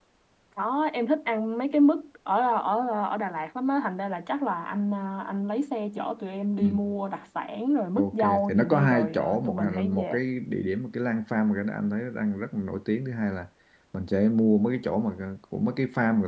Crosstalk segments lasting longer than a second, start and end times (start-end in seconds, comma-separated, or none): 8.0-10.2